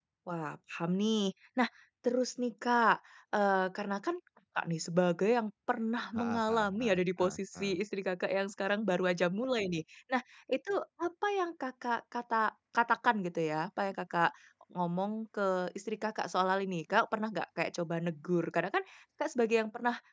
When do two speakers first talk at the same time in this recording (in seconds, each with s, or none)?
6.1 s